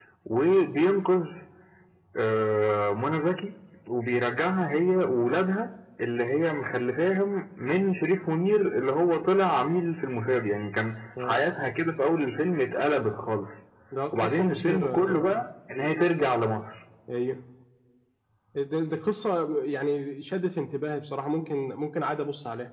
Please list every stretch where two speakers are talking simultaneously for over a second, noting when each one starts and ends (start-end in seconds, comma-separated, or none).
14.1-15.4